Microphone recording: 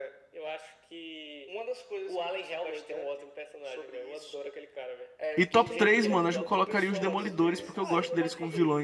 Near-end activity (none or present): present